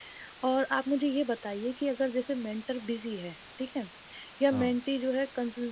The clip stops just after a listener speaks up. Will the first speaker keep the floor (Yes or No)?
Yes